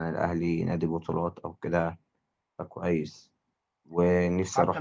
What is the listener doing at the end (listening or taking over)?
listening